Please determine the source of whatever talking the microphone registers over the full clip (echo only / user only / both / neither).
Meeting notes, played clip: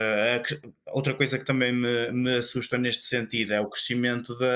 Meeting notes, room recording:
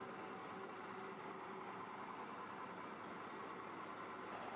neither